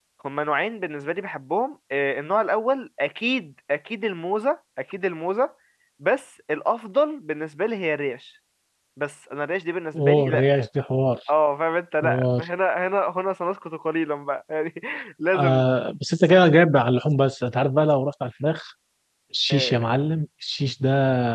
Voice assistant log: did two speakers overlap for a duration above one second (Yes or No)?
No